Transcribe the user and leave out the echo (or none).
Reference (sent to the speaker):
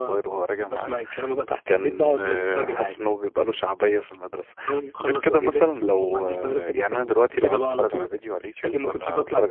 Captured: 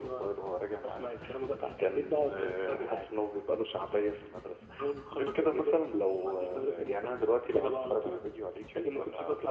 none